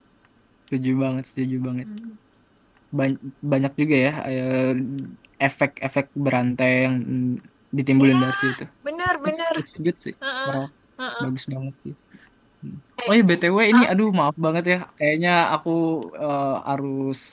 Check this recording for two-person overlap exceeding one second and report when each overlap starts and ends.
none

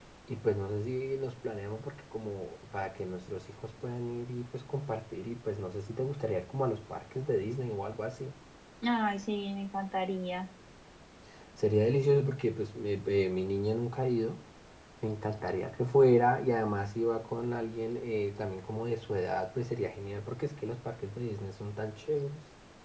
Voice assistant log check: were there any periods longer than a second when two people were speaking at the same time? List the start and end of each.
none

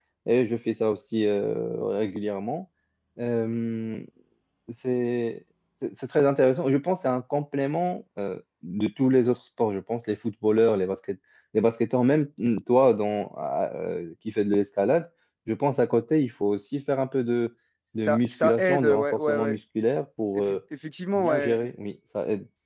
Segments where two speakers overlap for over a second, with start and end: 17.9-19.6

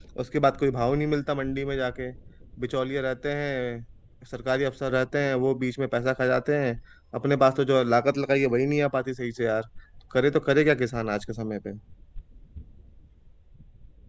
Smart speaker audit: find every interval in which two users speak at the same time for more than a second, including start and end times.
none

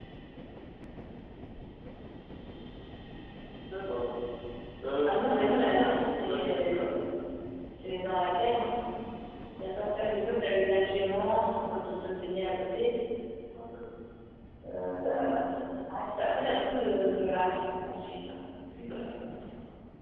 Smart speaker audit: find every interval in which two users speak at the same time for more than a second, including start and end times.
5.0-6.9

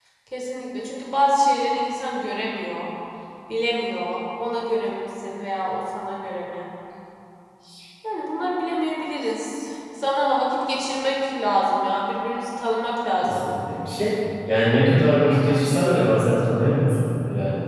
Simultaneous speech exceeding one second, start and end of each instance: none

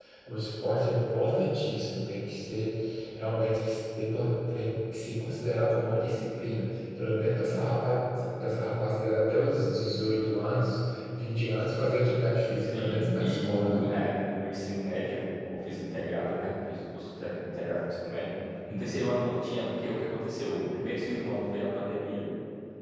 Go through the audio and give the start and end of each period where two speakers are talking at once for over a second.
12.6-13.9

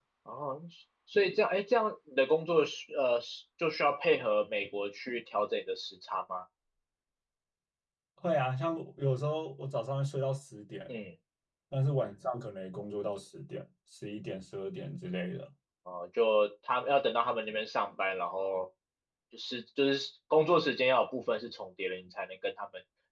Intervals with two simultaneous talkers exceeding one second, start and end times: none

